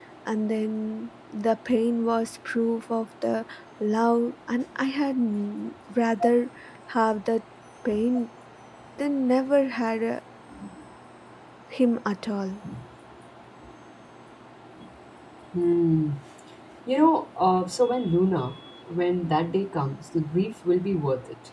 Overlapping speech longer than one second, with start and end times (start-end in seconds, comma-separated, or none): none